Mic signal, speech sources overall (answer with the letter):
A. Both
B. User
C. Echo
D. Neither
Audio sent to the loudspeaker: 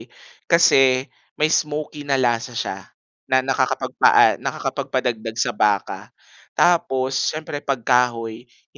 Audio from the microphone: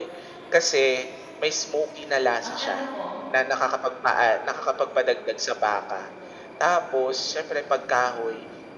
A